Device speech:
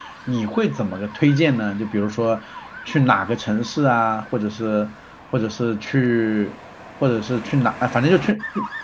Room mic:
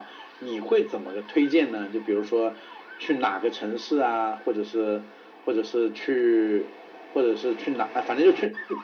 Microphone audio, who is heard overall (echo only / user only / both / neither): echo only